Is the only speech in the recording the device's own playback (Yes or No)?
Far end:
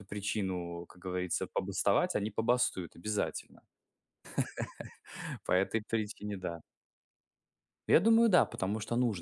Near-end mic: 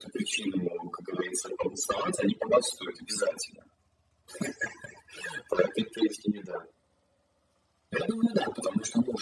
Yes